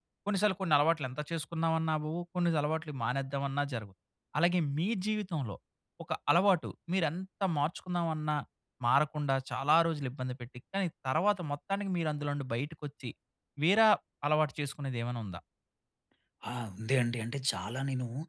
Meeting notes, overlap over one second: none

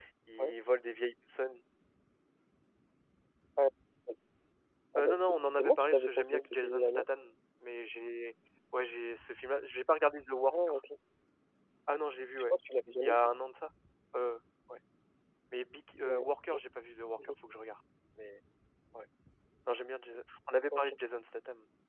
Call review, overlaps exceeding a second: present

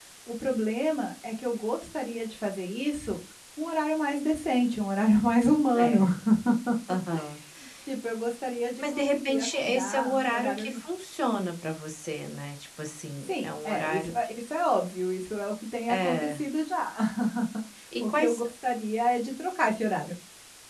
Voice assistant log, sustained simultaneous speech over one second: present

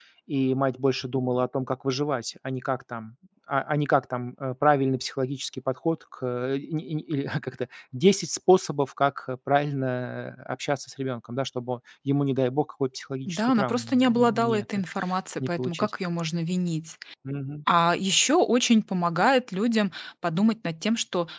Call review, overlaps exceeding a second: present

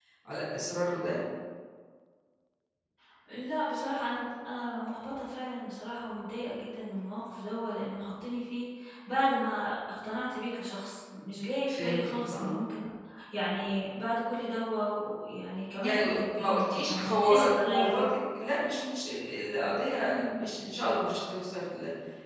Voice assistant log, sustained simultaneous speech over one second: present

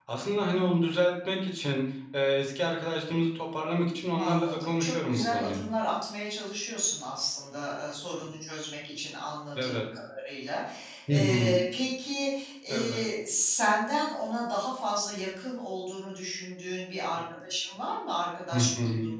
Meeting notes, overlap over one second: present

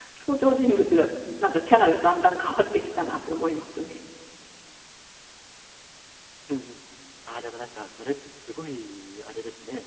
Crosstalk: none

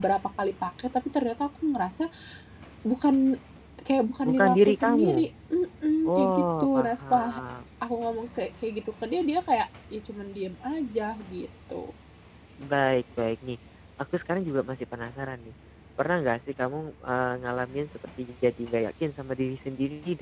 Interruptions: present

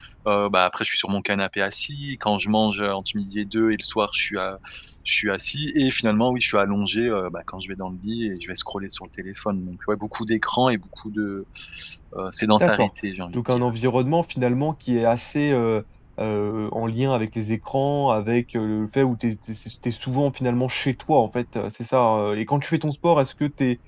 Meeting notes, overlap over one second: none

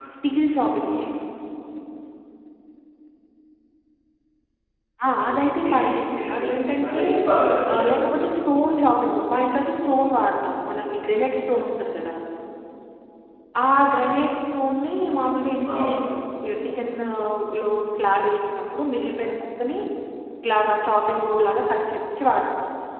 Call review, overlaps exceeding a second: present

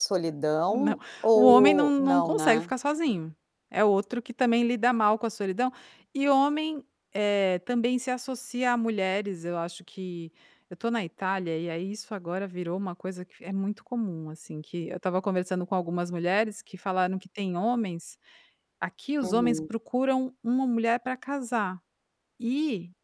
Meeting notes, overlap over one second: present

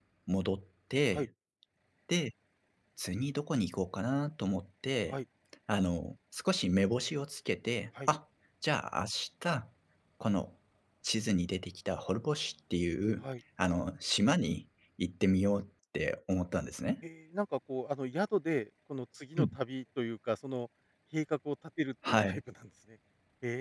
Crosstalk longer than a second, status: none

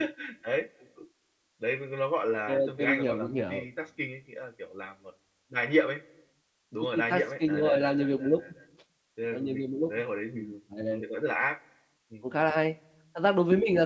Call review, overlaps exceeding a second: present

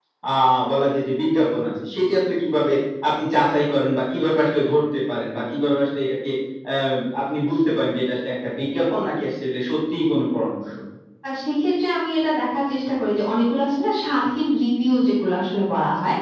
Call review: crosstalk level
none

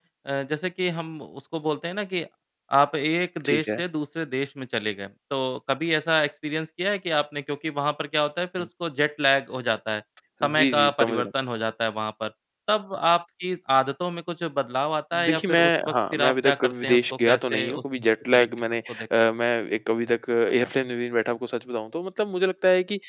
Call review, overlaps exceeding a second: present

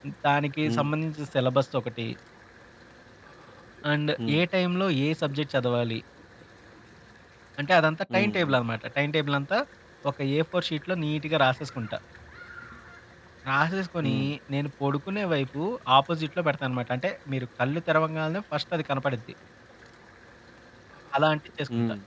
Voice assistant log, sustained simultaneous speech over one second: none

